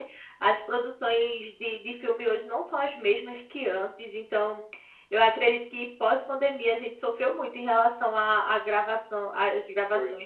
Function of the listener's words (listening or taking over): listening